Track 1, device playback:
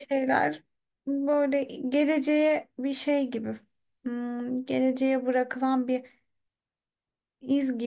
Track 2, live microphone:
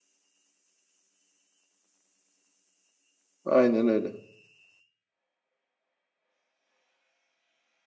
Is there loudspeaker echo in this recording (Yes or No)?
No